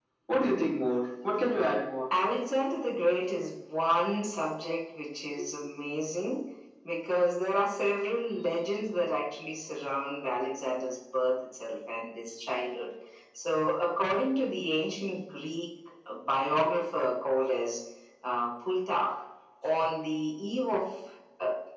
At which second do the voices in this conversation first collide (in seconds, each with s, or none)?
none